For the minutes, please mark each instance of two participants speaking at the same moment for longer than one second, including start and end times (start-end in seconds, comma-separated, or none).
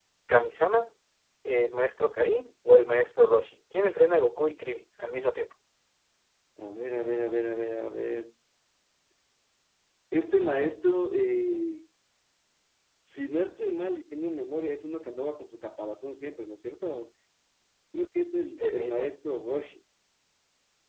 none